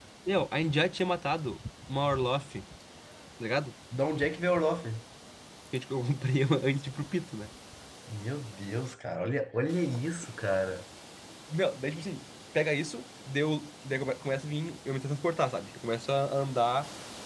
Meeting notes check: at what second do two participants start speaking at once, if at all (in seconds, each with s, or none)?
none